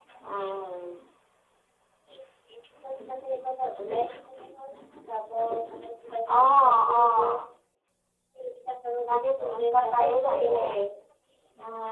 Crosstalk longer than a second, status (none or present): present